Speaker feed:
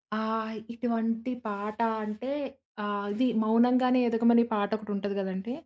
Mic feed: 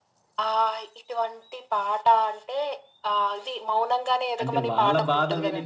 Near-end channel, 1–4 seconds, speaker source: echo only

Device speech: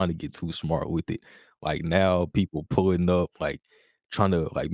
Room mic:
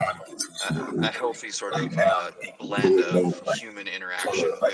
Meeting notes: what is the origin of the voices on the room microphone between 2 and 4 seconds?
both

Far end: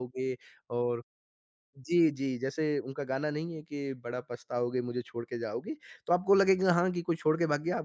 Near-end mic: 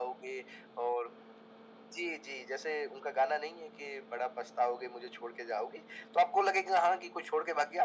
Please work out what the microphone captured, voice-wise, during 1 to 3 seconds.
echo only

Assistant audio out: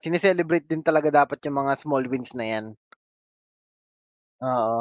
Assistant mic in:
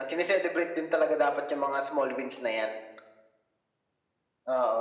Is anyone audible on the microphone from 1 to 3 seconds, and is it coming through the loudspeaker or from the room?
echo only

